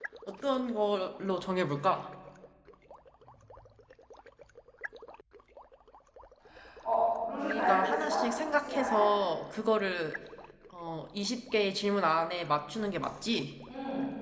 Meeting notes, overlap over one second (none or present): present